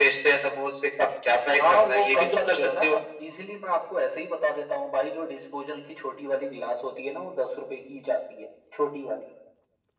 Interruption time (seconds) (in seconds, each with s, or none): 1.6 s